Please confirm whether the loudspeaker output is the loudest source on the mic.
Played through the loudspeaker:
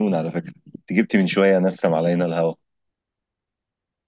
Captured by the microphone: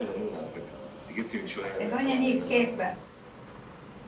No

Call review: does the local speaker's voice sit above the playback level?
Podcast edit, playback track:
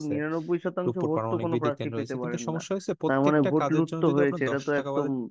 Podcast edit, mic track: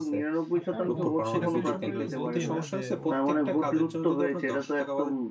No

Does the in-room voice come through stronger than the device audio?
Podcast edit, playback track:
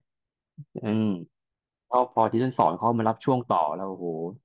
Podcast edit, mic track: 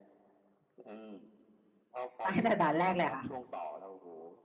Yes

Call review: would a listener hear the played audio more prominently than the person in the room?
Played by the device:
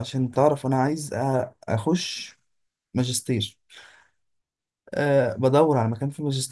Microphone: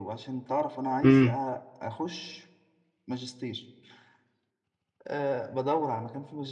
No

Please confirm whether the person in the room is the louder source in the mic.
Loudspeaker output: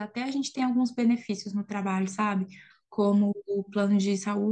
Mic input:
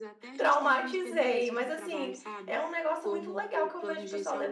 Yes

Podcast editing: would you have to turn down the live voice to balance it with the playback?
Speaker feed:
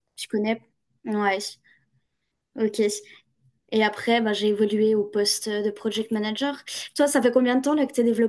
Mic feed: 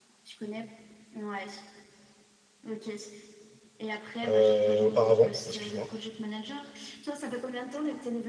Yes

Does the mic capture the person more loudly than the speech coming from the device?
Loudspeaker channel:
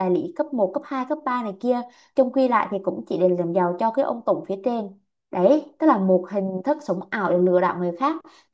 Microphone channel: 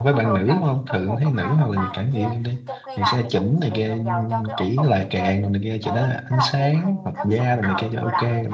Yes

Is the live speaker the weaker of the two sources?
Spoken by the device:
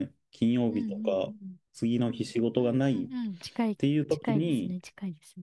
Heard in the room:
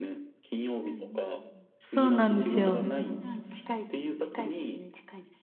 No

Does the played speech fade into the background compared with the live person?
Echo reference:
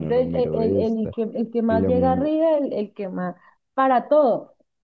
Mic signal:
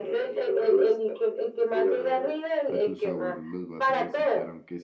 No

